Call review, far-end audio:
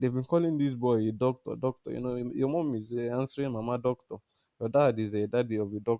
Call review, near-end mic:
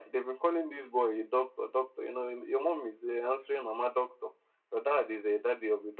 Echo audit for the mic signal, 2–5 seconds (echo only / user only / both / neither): echo only